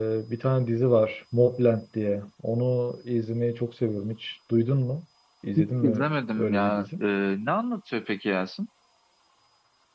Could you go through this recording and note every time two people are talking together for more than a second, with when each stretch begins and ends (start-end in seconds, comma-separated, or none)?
5.6-7.0